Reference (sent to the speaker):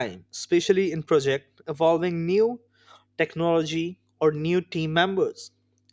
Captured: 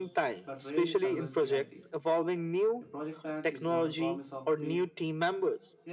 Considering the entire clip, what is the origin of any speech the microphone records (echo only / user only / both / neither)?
both